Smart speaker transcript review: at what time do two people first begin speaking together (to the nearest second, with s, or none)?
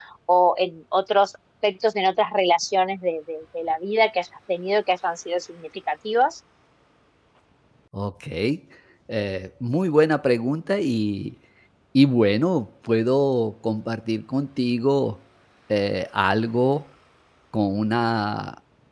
none